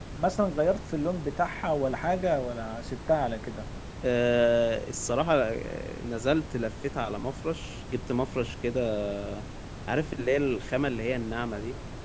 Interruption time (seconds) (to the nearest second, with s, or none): none